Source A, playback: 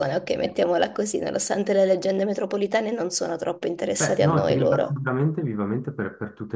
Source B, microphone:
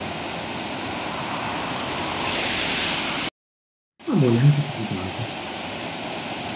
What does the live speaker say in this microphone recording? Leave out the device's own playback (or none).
ma buono, neanche così tanto.